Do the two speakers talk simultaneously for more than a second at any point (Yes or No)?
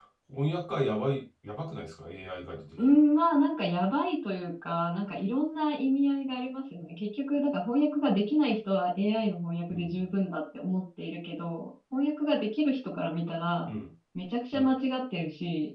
No